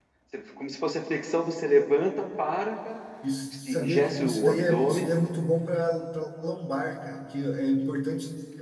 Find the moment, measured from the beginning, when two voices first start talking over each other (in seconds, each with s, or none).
3.7 s